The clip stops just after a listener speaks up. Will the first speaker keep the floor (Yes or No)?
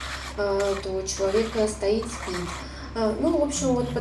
Yes